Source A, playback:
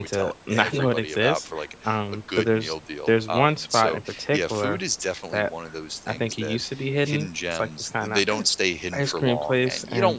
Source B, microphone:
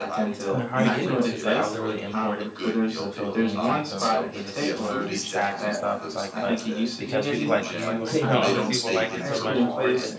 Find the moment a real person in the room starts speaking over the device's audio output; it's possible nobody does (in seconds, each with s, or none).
0.5 s